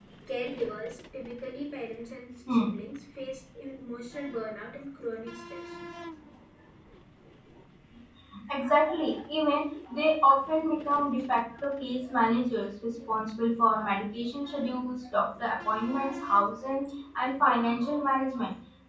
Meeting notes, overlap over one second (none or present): none